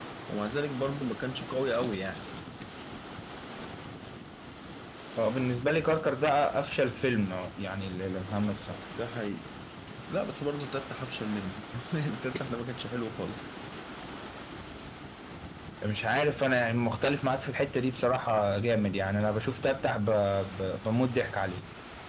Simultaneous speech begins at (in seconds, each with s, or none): none